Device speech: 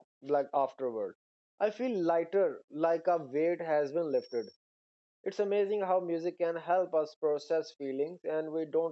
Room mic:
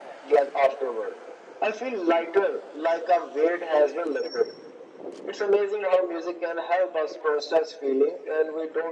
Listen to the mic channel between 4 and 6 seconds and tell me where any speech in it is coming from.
echo only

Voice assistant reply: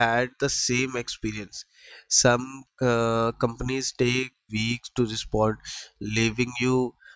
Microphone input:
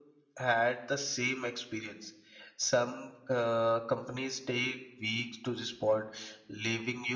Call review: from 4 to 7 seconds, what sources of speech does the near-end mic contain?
echo only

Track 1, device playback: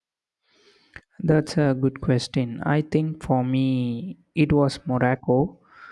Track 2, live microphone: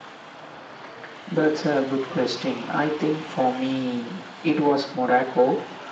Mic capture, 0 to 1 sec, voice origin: neither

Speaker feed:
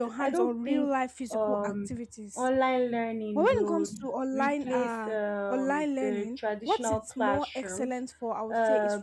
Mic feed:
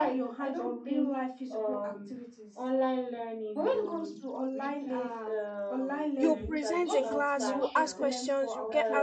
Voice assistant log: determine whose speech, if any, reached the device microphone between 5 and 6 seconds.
echo only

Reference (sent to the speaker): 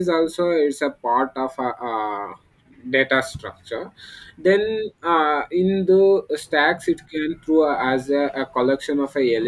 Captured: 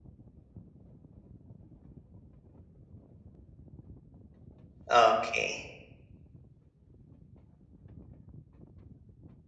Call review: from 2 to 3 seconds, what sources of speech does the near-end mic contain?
neither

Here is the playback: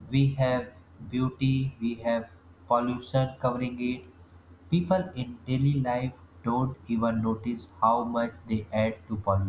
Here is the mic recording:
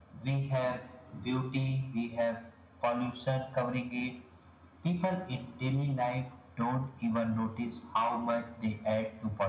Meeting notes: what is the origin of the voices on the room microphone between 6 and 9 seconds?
echo only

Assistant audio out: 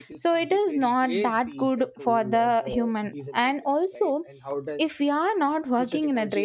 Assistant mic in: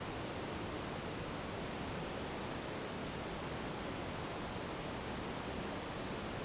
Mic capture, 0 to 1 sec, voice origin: neither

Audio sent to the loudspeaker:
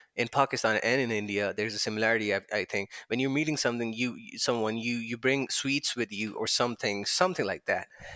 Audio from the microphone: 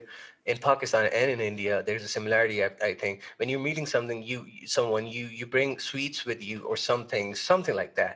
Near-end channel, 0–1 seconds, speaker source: echo only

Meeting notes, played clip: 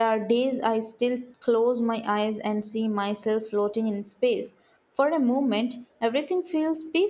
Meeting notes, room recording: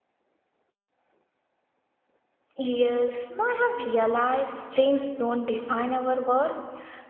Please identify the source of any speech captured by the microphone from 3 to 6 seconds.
user only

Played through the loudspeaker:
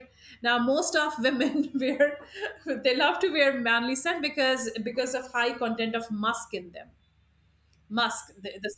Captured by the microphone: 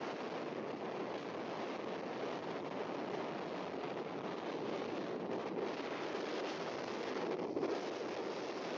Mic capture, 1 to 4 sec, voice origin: neither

